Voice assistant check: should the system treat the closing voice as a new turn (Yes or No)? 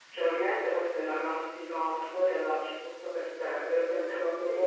No